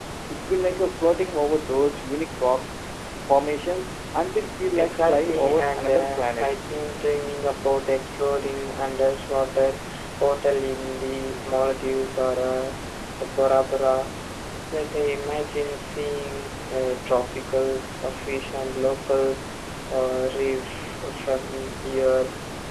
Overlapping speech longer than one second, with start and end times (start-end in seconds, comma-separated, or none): 4.8-6.5